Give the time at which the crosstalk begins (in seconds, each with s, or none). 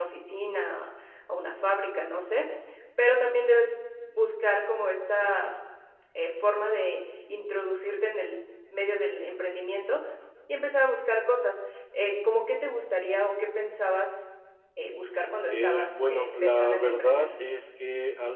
15.5 s